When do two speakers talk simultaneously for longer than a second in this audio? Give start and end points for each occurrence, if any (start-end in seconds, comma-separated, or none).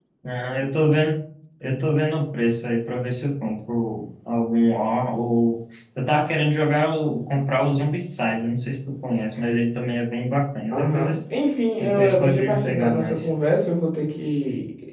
11.8-13.3